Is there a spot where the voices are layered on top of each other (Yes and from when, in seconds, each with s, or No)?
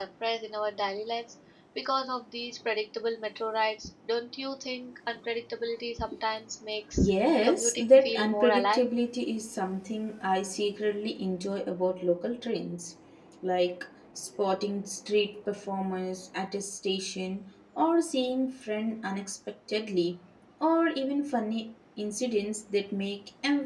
Yes, from 7.4 s